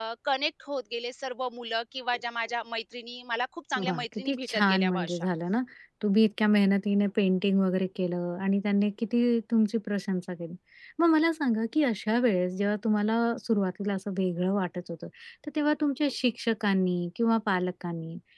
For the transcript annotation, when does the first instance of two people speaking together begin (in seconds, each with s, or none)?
3.8 s